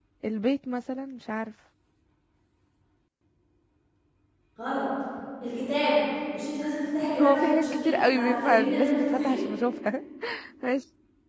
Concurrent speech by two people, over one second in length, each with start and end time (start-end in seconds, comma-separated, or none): 7.2-9.4